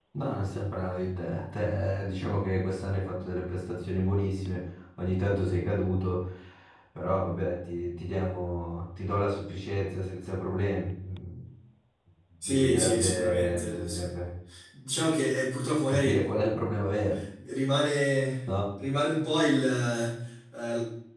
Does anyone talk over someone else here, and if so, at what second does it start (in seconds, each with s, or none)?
12.5 s